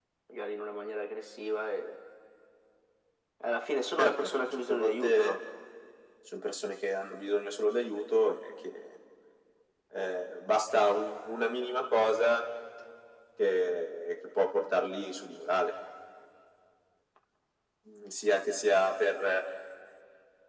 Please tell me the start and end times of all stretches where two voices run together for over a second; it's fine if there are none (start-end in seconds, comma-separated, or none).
4.0-5.4